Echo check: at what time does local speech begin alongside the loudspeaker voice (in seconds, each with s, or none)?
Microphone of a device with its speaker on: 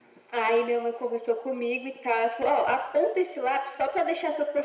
none